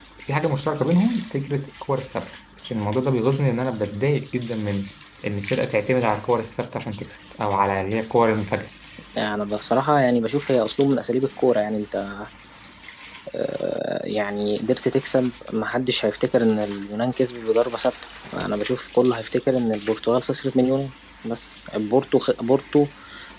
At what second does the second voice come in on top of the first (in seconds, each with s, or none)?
none